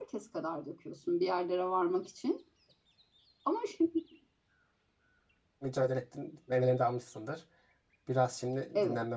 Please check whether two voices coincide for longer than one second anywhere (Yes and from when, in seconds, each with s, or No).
No